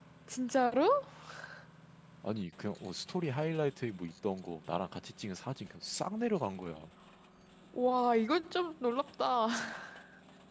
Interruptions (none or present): none